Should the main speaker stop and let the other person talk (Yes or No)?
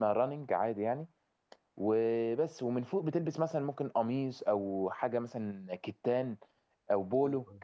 No